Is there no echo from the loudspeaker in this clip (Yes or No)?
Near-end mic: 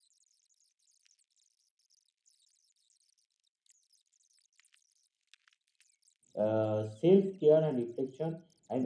Yes